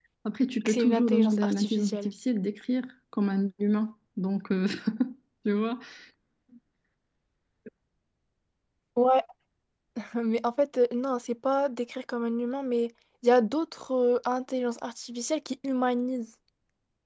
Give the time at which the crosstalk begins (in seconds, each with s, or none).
0.7 s